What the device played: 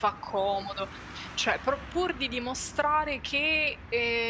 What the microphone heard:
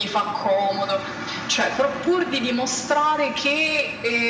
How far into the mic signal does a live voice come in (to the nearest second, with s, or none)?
none